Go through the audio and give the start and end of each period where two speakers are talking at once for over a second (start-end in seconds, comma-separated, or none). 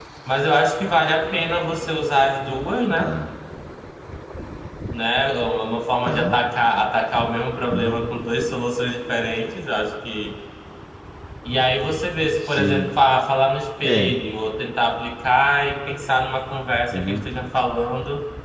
none